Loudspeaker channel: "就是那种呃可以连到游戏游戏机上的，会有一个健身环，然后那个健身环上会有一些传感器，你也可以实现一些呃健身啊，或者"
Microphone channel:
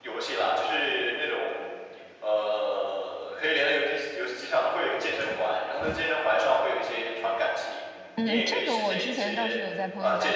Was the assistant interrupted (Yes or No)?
Yes